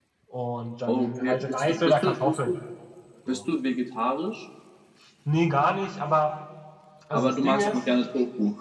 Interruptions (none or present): present